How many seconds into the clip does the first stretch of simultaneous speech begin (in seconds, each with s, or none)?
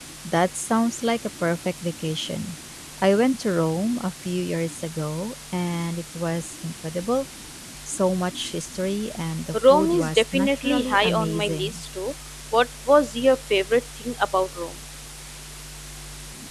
9.5 s